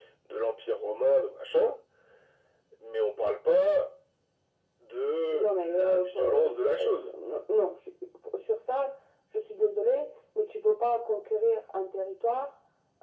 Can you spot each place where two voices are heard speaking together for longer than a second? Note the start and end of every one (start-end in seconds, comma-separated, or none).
5.3-7.1